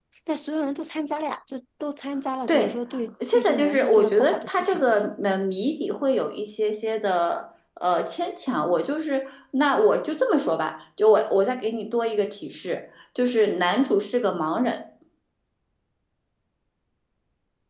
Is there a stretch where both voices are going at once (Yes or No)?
Yes